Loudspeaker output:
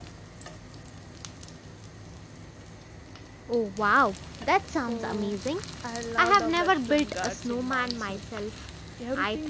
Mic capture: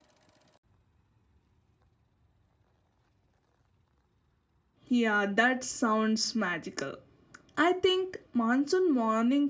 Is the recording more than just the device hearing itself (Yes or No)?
Yes